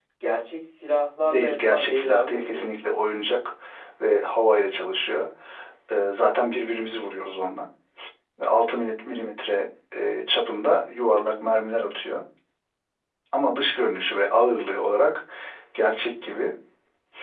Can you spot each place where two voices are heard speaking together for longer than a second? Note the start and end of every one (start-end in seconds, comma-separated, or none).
1.3-2.7